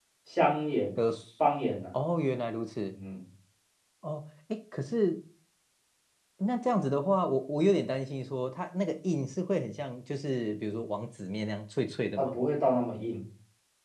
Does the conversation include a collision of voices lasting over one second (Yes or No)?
No